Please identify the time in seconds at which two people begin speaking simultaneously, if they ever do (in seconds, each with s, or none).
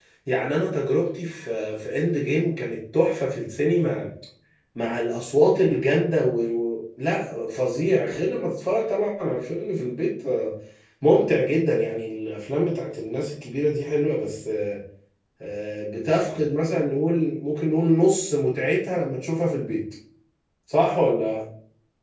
none